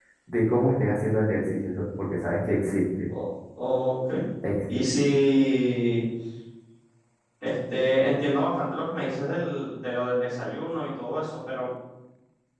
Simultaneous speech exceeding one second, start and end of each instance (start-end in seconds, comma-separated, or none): none